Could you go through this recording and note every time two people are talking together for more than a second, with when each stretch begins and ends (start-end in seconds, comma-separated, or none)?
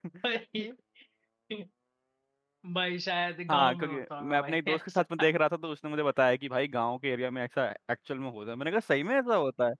3.5-5.0